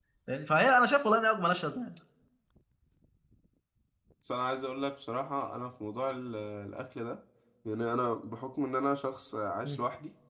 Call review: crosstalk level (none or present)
none